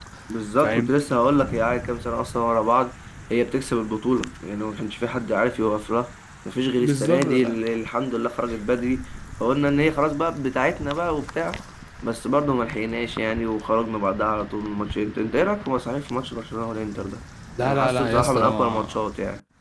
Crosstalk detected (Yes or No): Yes